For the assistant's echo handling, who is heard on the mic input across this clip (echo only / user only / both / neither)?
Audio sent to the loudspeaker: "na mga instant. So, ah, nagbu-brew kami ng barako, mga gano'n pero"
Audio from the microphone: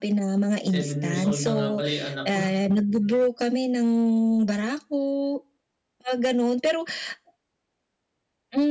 both